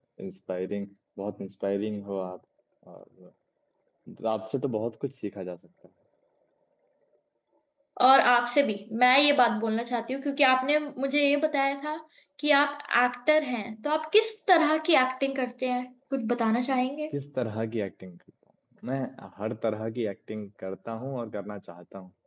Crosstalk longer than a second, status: none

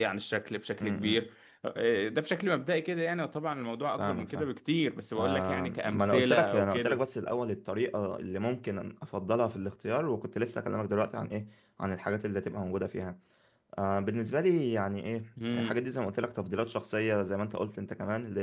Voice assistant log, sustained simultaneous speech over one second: present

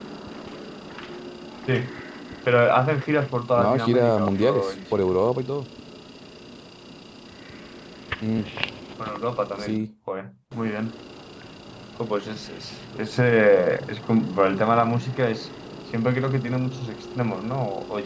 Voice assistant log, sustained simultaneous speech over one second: present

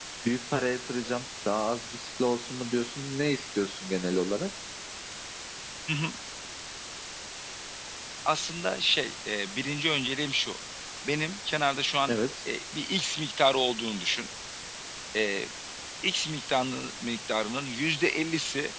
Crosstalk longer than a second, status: none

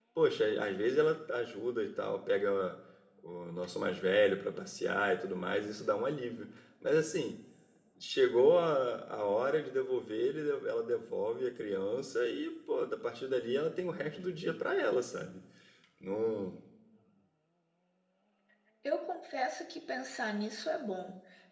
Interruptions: none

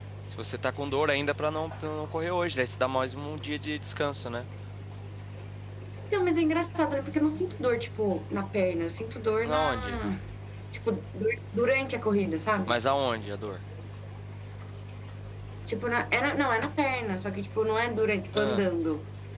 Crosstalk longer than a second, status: none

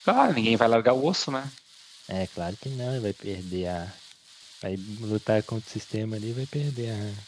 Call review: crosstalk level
none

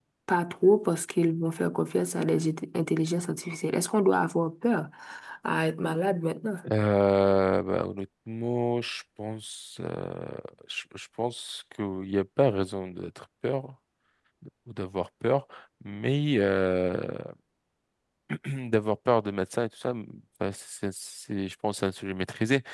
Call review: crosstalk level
none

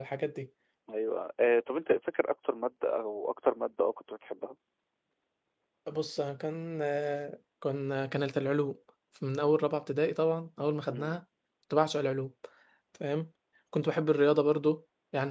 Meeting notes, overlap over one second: none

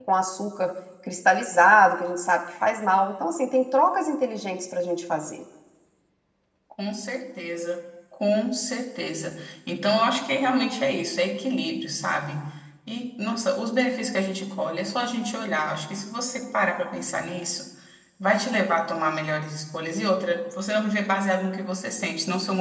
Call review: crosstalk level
none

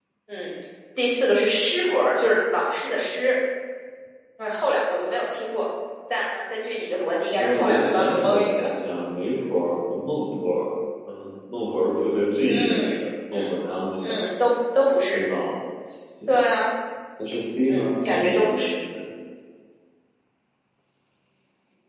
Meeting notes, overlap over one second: present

